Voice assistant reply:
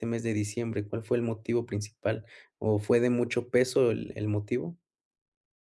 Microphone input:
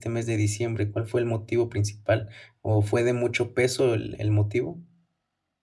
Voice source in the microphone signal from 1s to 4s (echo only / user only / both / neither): echo only